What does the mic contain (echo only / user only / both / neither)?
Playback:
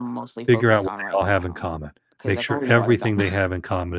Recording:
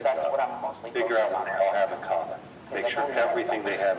echo only